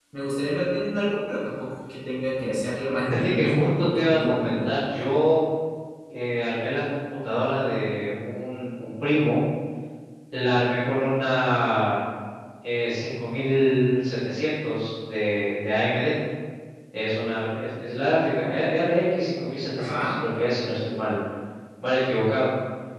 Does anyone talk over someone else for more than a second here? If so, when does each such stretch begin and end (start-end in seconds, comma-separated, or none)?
3.0-4.8